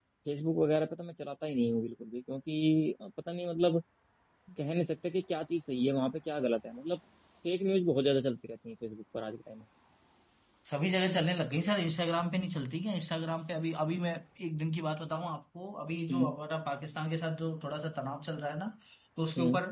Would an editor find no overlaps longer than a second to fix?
Yes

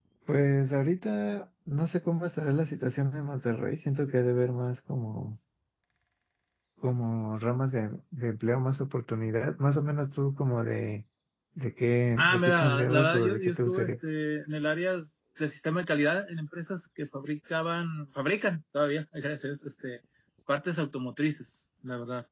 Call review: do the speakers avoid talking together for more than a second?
No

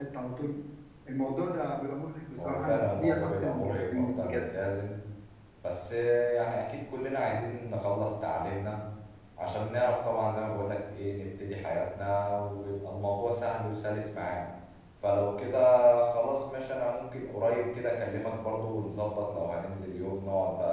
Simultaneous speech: Yes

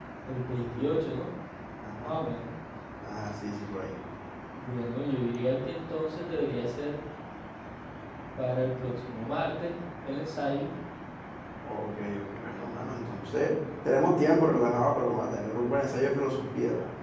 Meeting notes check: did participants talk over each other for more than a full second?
No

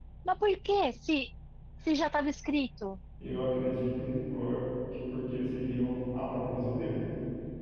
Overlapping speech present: No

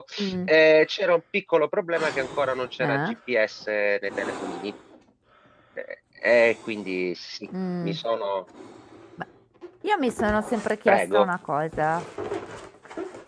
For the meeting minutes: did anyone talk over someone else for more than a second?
No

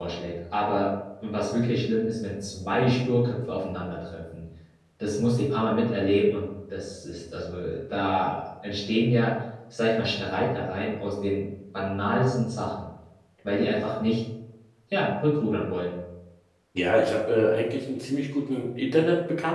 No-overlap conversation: Yes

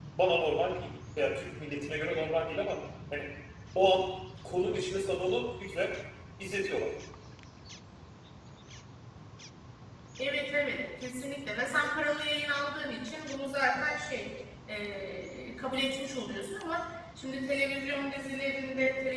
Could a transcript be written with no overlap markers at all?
Yes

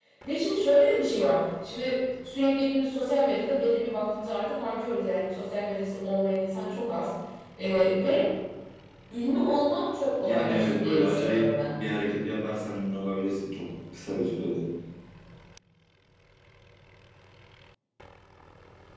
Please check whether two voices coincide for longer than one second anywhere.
Yes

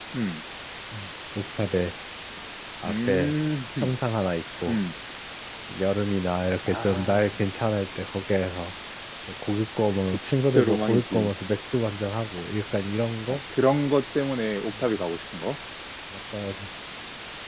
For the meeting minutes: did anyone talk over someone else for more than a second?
Yes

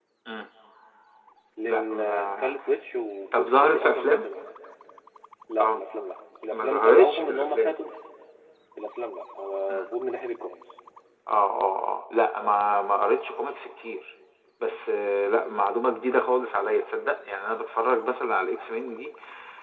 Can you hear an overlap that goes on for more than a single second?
Yes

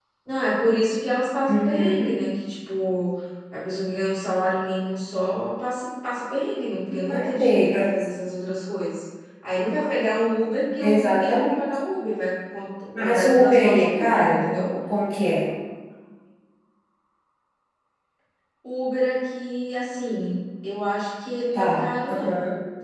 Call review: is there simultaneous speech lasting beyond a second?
Yes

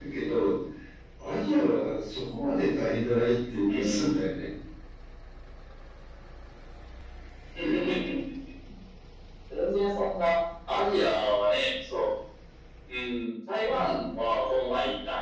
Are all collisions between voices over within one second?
Yes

